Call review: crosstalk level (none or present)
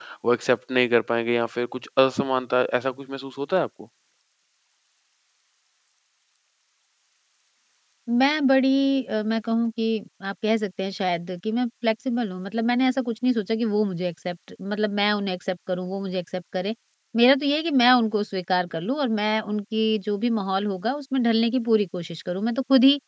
none